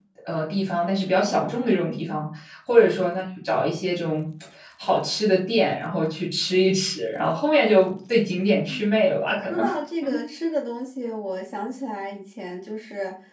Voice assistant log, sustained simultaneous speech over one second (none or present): none